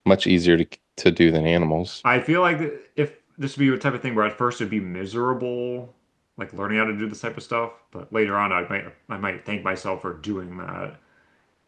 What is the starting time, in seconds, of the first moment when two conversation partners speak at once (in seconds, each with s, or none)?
none